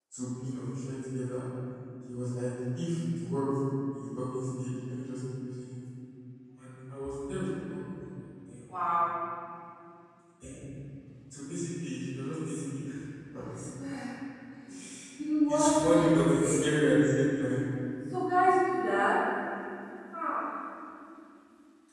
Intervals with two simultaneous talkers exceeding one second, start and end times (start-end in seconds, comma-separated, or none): none